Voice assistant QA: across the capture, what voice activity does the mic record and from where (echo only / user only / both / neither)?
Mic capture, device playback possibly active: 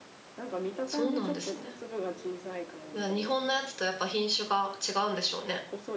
both